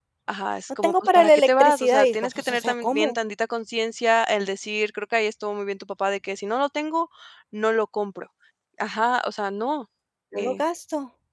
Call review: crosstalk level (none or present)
present